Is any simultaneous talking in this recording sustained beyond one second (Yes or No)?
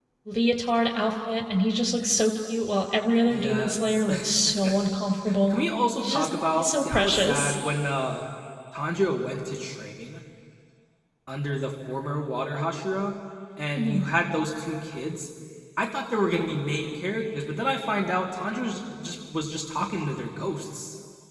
Yes